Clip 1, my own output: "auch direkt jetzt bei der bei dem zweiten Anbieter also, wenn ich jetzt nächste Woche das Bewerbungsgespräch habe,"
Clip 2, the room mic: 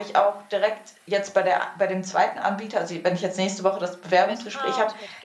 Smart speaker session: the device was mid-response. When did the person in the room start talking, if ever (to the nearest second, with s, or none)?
4 s